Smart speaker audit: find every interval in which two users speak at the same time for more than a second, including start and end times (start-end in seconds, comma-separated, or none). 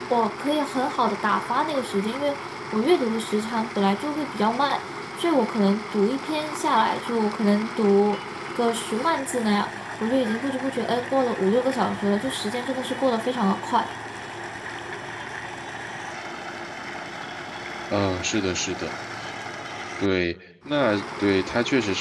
none